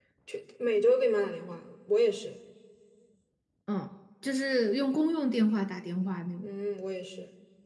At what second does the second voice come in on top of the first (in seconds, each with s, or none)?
none